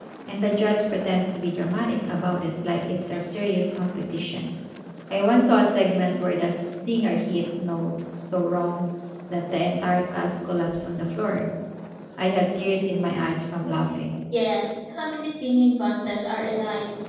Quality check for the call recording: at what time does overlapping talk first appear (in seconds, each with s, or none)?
none